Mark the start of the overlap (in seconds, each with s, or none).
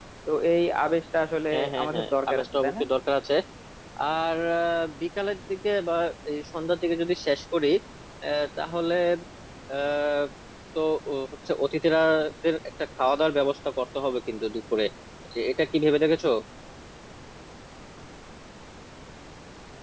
1.5 s